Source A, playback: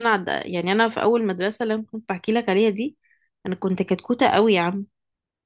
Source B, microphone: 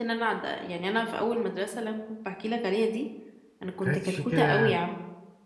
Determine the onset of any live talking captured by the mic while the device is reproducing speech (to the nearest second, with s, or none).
4 s